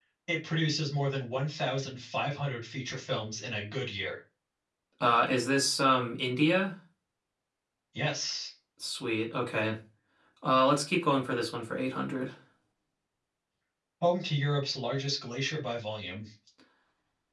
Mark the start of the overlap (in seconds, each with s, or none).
none